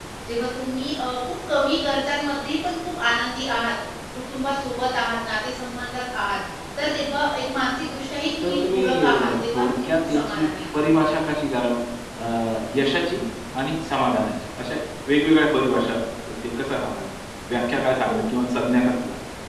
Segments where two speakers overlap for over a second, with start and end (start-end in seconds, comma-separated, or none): 8.4-10.8